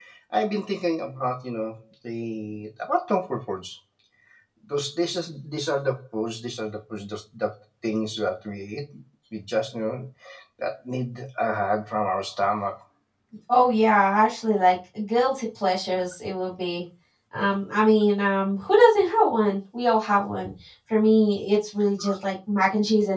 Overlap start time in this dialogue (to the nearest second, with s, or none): none